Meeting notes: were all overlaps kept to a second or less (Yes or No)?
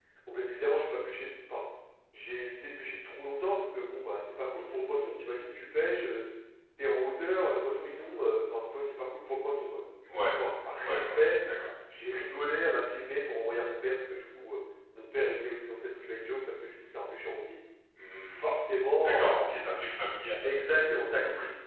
Yes